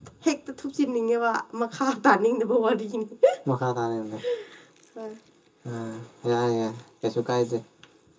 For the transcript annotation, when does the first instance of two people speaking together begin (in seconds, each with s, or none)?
none